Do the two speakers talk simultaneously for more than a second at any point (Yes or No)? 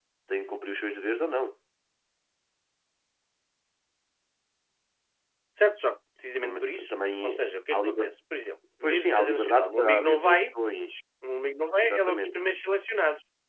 Yes